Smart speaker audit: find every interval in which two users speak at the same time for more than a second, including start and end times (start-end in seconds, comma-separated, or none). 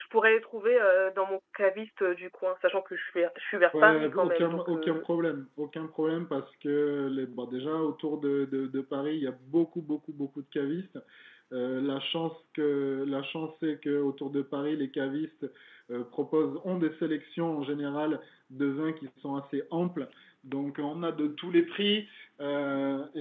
3.8-5.0